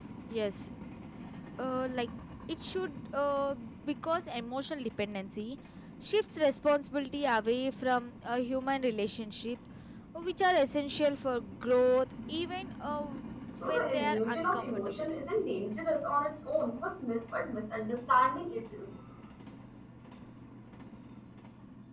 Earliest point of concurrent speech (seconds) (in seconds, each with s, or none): 13.6 s